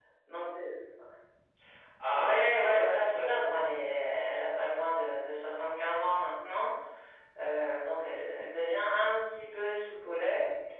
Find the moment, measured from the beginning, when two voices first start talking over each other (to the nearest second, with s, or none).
2 s